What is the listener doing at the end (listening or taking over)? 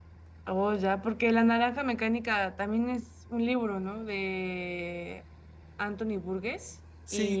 taking over